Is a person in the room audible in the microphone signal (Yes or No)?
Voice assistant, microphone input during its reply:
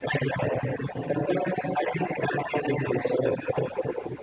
No